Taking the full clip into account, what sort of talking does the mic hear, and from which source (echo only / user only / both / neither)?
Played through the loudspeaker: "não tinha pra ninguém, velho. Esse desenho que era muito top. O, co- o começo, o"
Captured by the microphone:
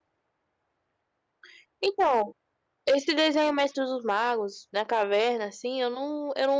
user only